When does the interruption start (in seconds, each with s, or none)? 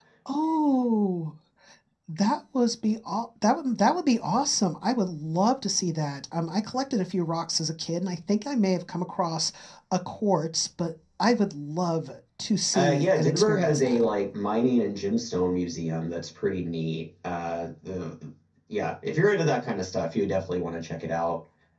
12.7 s